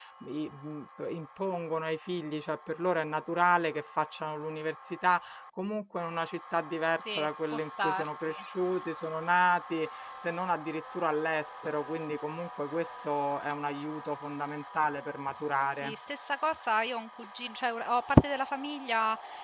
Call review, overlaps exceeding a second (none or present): present